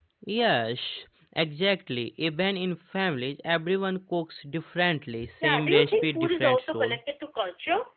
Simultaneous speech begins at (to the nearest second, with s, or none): 5 s